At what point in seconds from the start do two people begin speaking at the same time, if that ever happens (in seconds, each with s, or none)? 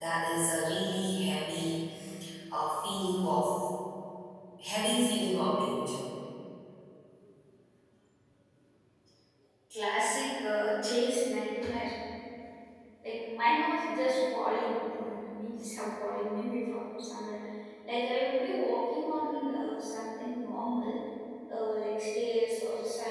none